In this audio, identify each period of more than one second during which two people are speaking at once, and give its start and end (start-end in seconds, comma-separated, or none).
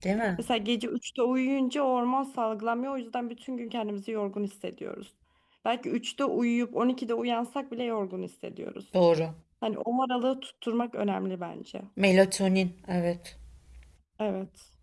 none